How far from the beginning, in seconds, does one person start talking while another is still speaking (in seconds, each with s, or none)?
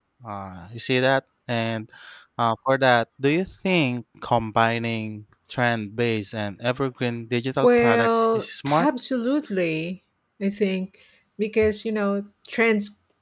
7.6 s